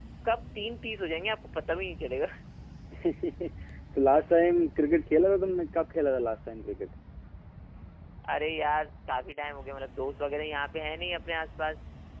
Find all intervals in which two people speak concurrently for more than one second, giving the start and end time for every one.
none

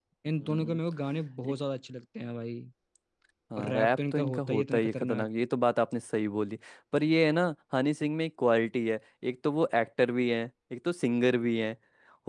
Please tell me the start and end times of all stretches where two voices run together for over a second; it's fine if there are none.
3.6-5.3

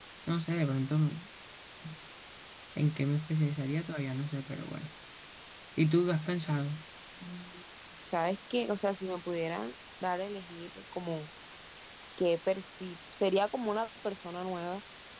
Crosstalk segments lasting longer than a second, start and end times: none

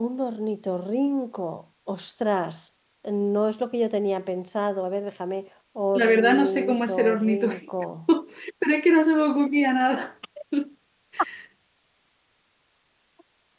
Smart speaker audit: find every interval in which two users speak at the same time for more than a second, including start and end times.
6.0-7.7

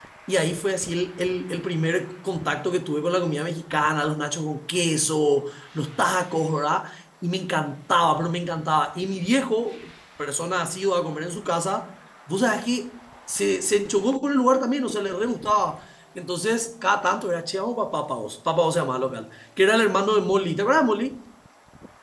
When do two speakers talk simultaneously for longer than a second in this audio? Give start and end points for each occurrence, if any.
none

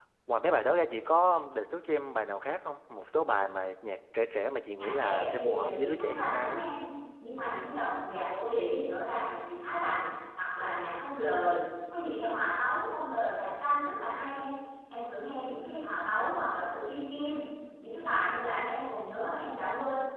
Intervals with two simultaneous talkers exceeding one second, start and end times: 4.8-6.6

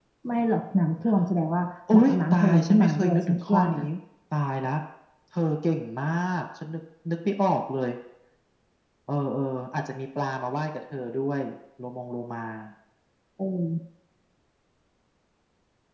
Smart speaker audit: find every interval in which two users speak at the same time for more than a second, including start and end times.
1.9-3.8

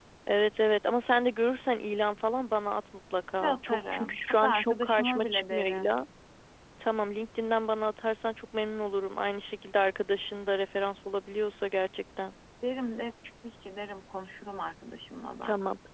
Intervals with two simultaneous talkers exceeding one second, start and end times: 3.4-5.9

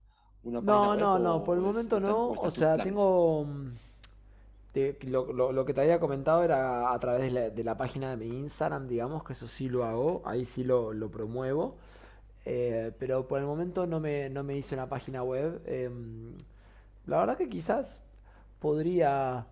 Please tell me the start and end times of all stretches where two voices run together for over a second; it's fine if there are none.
0.6-3.1

